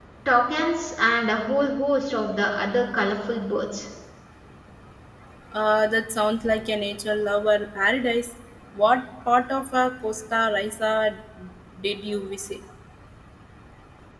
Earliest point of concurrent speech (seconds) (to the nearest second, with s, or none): none